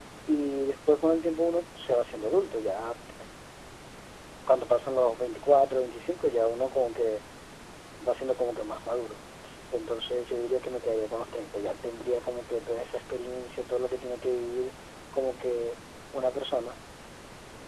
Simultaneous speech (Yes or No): No